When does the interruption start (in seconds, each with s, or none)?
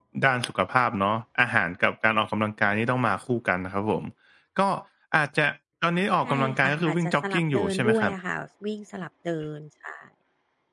6.2 s